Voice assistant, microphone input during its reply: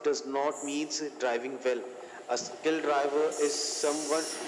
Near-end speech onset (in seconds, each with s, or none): none